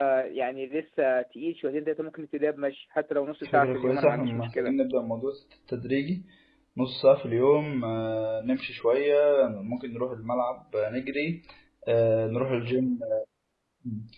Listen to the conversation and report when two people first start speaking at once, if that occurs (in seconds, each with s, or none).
3.4 s